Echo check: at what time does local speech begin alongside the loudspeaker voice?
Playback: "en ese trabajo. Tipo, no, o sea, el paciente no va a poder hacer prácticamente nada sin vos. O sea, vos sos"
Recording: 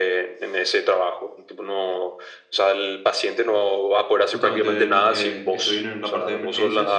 4 s

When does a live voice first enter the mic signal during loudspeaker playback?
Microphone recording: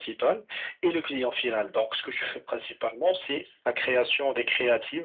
none

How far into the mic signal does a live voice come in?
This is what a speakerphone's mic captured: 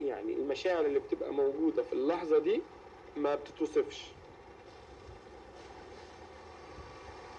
none

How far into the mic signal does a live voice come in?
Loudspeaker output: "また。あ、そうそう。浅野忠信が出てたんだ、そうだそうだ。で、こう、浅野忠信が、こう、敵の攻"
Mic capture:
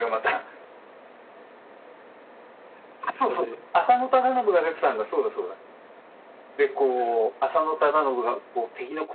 3 s

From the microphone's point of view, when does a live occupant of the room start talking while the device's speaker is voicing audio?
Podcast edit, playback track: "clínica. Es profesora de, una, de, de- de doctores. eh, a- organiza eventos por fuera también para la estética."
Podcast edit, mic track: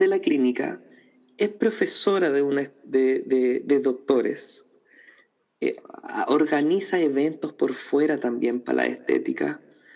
none

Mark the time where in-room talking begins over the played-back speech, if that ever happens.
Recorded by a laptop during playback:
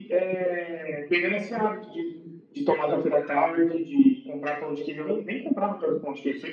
none

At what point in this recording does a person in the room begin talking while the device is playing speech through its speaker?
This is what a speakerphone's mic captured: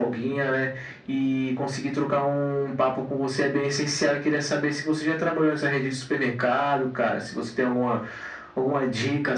none

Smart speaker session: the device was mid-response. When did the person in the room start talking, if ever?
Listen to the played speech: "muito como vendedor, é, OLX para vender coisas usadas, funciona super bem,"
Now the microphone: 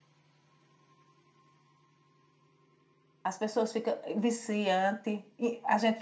3 s

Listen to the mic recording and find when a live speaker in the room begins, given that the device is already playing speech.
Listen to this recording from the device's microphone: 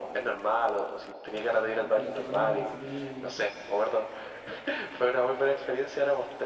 2 s

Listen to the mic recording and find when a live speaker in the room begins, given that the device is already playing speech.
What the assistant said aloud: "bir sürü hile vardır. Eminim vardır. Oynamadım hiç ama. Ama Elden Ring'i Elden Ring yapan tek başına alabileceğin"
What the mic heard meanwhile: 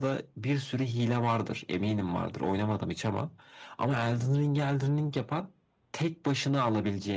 none

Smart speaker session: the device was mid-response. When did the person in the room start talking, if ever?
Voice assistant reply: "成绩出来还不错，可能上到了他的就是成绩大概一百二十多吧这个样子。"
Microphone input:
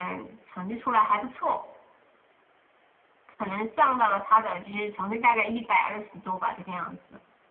none

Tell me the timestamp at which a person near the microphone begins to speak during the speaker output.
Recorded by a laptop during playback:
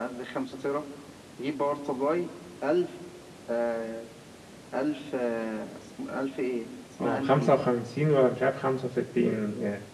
7 s

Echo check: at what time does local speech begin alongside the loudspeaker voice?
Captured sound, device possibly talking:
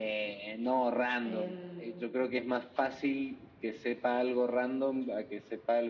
1 s

